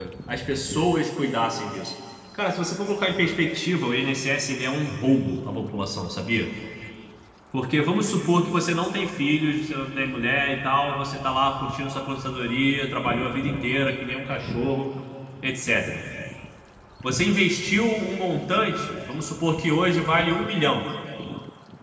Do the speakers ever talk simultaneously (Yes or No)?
No